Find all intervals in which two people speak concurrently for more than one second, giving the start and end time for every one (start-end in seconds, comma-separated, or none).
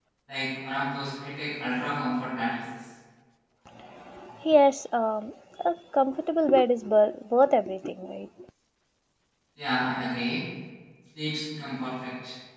none